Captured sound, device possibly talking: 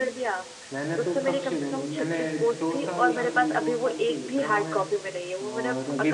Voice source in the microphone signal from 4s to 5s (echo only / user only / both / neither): both